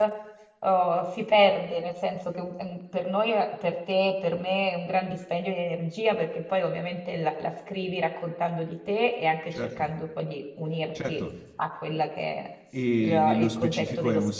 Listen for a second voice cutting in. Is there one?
Yes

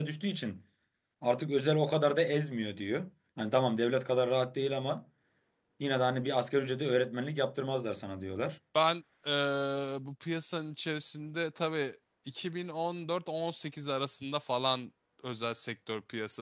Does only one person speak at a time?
Yes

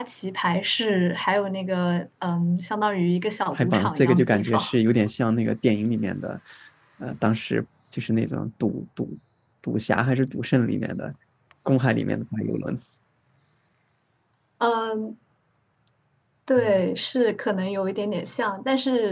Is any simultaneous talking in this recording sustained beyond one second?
Yes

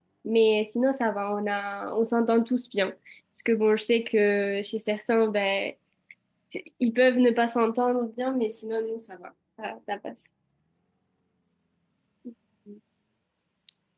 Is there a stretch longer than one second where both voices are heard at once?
No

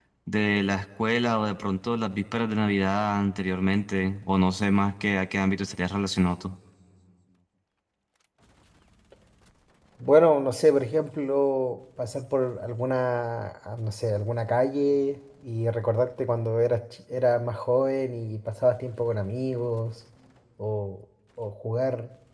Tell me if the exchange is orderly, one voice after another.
Yes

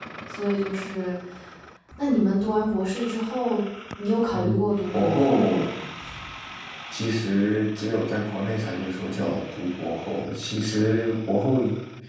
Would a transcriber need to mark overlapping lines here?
Yes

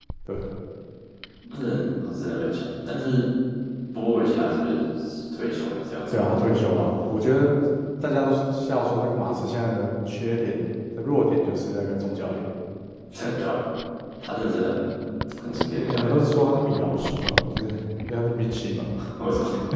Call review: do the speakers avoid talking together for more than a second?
Yes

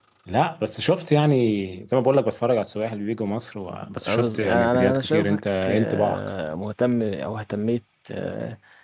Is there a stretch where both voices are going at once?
Yes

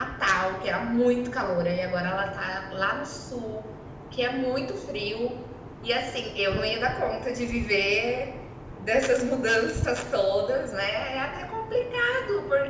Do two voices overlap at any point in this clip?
No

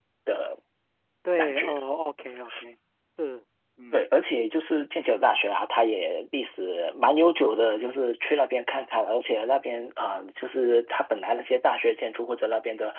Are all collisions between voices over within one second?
Yes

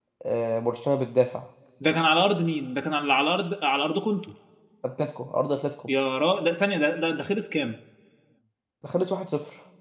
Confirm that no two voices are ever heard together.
Yes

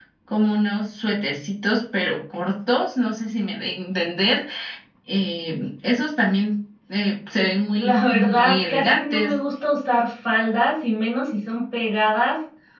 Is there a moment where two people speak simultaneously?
Yes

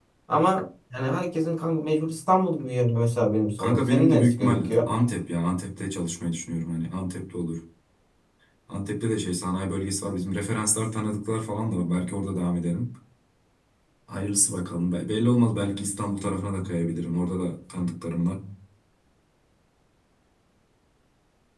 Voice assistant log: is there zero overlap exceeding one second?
No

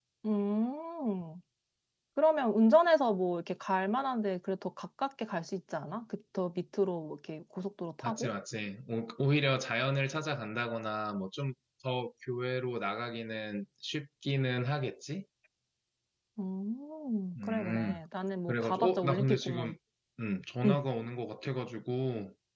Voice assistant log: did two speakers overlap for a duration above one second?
Yes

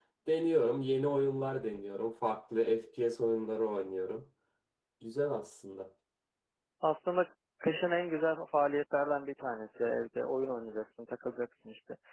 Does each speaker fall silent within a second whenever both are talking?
Yes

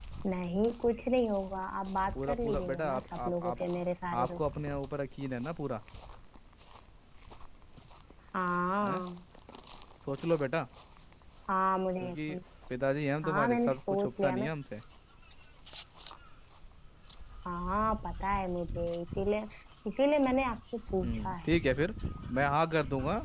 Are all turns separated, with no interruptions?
No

